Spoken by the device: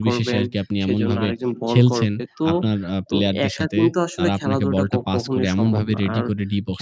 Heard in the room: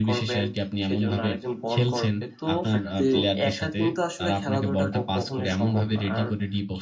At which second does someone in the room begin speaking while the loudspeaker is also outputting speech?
2.7 s

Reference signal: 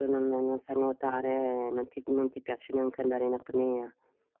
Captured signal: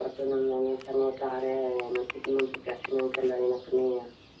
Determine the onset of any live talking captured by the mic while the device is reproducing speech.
none

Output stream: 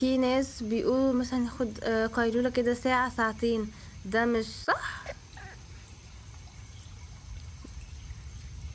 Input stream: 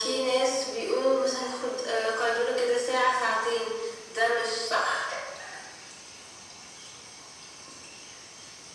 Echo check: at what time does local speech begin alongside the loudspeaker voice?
none

